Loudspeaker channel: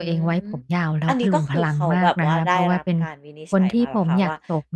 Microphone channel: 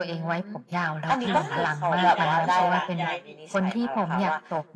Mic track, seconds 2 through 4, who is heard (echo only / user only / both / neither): both